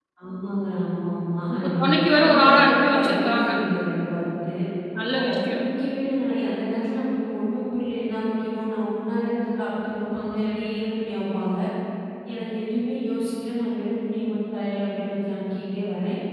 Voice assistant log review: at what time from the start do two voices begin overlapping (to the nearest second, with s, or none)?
2 s